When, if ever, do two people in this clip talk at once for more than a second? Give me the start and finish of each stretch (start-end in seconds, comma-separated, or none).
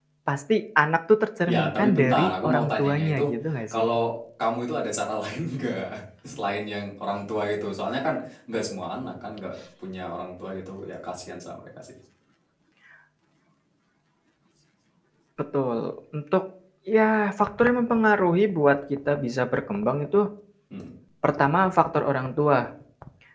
1.5-3.2